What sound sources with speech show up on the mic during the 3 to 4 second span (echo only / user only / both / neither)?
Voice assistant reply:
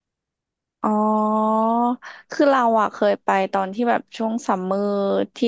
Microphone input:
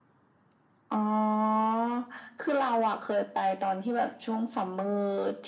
echo only